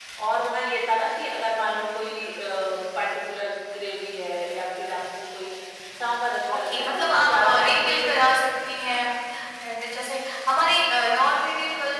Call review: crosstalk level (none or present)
present